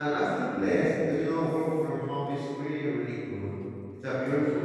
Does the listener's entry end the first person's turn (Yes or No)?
No